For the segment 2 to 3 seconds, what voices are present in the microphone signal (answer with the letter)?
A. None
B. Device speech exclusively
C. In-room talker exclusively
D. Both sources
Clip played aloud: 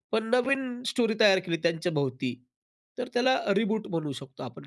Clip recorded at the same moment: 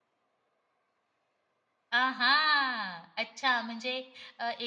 C